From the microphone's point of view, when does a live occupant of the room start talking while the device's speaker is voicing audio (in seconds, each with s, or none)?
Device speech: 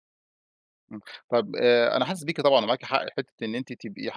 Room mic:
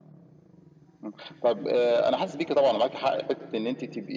none